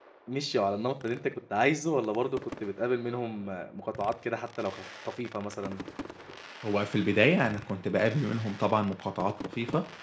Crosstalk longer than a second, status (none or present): none